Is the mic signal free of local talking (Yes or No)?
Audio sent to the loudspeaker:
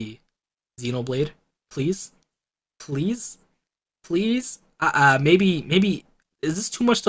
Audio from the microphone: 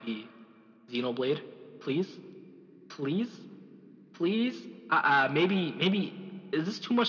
Yes